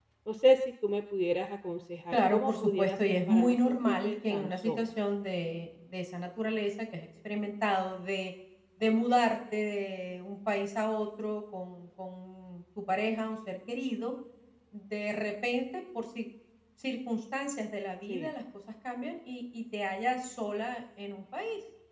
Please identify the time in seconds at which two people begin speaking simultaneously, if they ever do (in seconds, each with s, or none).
2.1 s